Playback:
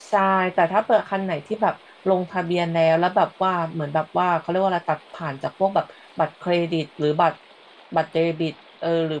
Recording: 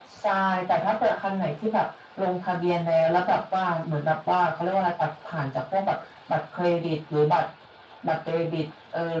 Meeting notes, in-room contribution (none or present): none